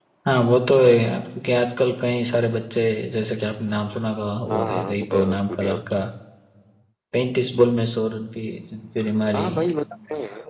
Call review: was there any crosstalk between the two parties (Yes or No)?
Yes